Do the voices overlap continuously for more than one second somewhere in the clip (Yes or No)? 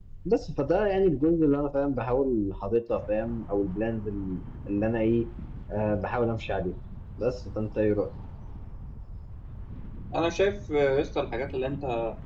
No